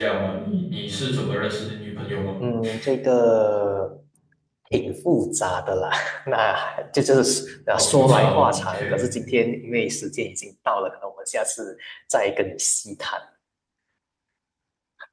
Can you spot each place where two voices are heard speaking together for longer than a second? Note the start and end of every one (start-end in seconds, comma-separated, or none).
7.7-9.0